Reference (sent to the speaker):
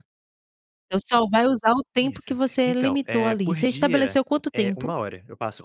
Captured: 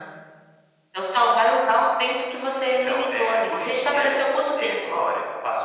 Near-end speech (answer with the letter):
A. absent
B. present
A